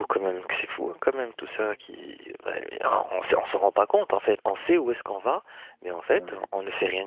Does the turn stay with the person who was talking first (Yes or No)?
Yes